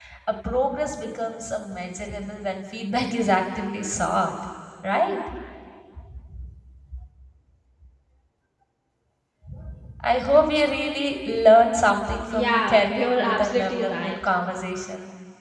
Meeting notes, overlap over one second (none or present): present